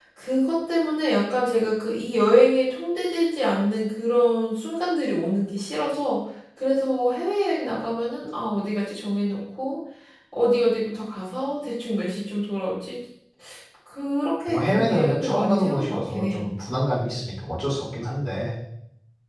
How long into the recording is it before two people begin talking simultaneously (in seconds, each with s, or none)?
14.5 s